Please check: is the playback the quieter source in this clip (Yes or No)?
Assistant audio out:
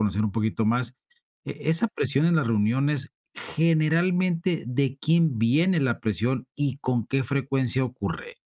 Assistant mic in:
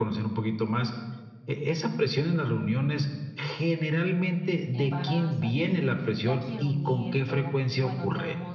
No